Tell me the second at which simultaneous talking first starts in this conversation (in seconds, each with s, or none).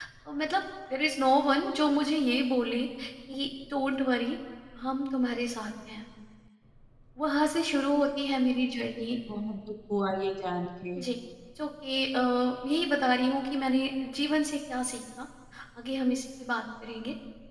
none